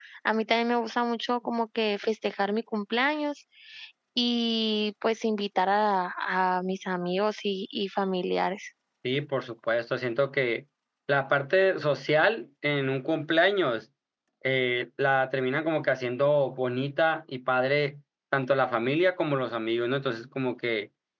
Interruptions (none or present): none